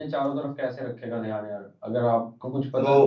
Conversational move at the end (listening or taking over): taking over